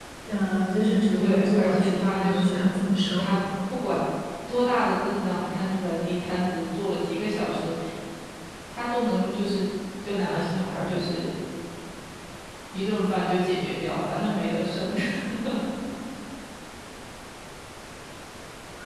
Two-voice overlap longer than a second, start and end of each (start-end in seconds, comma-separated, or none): 1.1-3.2